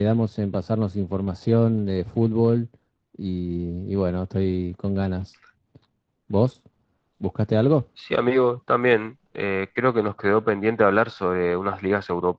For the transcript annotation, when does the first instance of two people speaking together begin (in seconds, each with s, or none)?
none